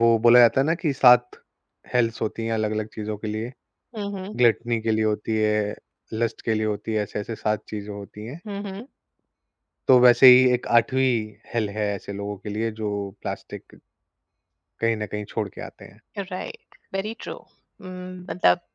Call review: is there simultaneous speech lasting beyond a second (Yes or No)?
No